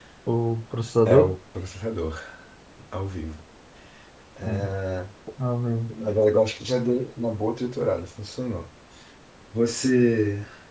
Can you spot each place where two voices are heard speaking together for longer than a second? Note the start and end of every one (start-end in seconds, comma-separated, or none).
none